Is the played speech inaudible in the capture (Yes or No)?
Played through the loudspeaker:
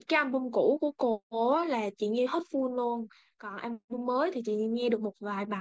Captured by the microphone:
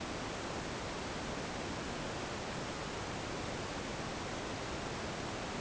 Yes